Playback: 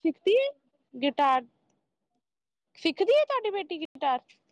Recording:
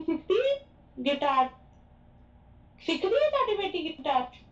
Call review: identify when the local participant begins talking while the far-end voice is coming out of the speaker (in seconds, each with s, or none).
none